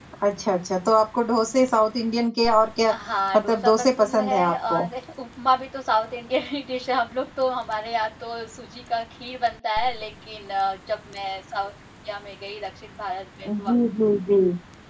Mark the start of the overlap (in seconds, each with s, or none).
3.4 s